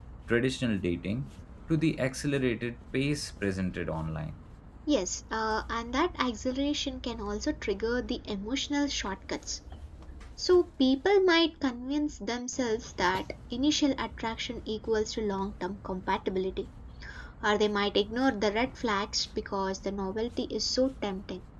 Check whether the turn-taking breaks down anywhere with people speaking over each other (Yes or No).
No